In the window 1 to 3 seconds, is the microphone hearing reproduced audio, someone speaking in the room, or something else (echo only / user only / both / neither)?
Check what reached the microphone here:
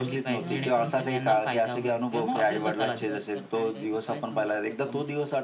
both